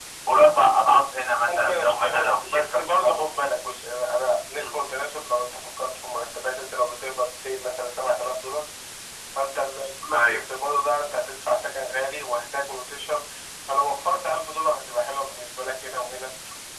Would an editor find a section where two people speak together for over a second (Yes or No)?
Yes